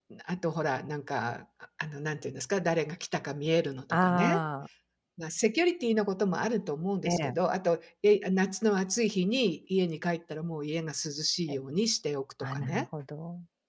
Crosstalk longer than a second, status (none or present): none